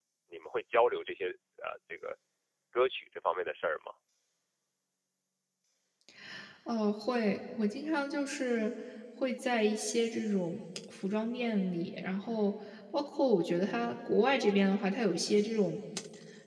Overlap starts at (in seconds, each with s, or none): none